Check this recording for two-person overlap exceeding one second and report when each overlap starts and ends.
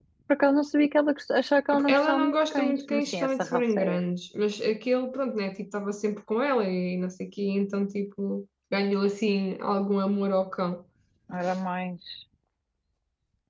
1.9-4.0

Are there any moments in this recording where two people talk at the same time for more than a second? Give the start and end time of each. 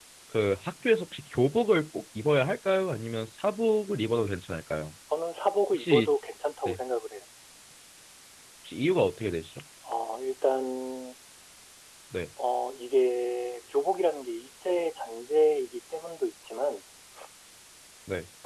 none

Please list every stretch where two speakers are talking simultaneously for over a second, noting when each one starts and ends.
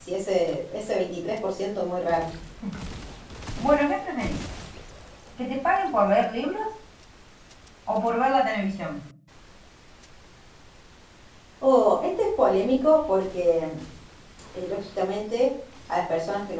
none

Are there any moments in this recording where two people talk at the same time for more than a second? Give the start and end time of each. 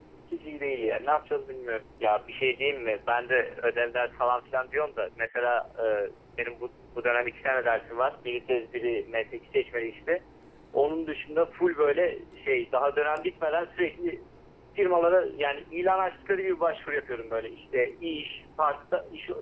none

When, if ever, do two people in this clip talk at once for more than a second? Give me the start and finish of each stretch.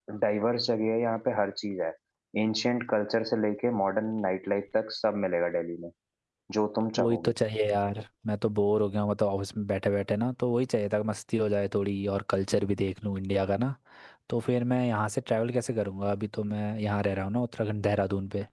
none

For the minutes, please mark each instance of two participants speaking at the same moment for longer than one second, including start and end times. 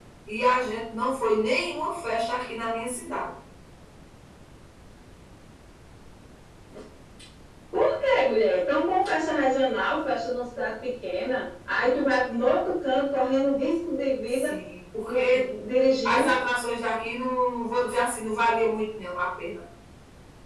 none

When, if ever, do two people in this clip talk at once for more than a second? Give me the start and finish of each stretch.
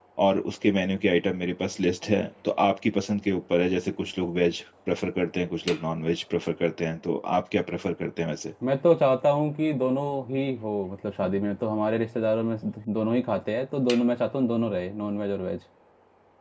none

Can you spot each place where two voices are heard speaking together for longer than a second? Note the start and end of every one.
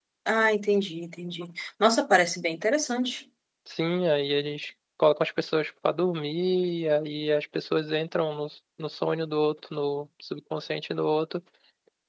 none

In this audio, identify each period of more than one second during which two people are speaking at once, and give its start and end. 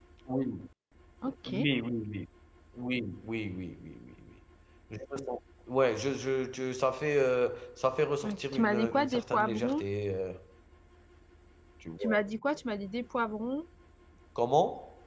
8.2-9.8

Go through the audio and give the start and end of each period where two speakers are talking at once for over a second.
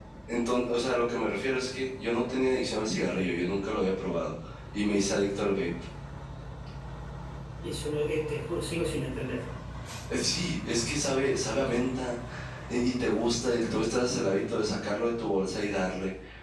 none

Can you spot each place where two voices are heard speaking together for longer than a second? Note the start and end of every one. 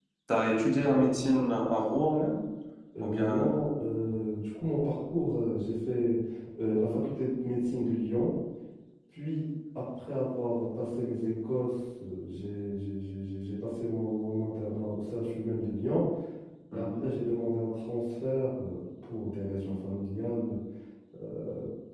none

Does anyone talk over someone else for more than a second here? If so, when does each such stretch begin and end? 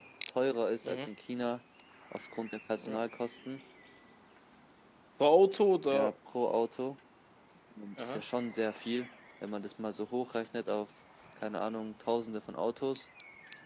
none

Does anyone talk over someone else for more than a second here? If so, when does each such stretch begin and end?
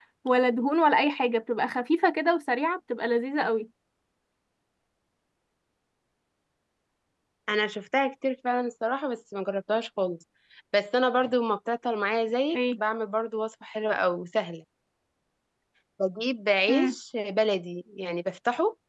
none

